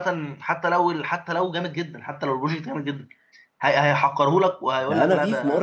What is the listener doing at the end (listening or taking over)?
taking over